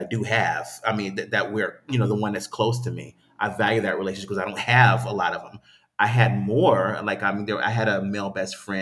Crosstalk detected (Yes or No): No